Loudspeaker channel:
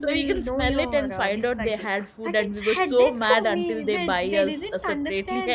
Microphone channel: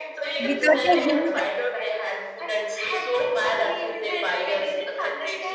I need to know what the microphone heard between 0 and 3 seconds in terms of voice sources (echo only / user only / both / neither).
both